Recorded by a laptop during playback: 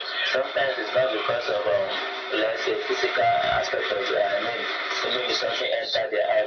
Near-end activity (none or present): none